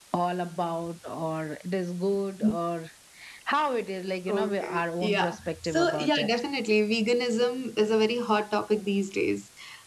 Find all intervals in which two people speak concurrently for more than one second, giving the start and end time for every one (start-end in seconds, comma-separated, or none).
4.3-6.3